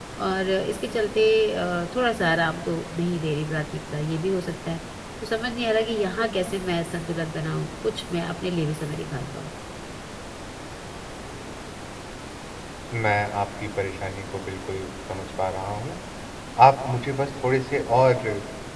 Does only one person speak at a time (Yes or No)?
Yes